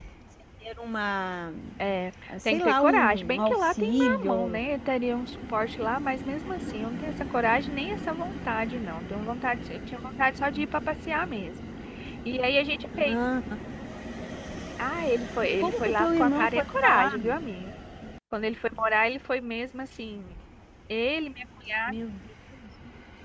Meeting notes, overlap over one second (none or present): present